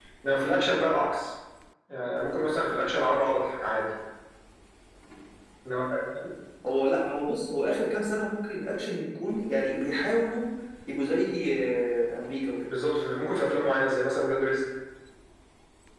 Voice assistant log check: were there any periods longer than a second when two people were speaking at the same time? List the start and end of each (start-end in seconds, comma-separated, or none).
none